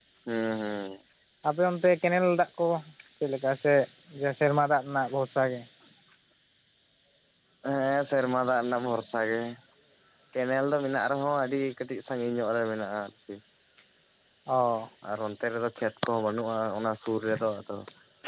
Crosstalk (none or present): none